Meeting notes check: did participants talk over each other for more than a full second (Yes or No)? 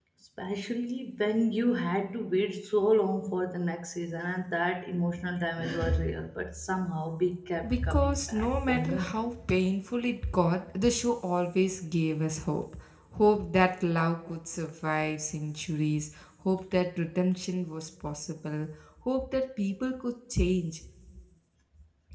Yes